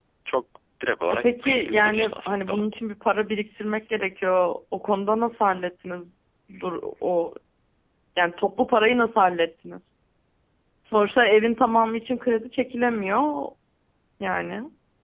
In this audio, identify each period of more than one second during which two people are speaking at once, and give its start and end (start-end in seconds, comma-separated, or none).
1.1-2.6